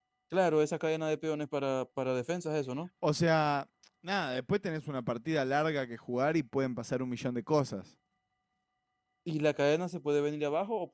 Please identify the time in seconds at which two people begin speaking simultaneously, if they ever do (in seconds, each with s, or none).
none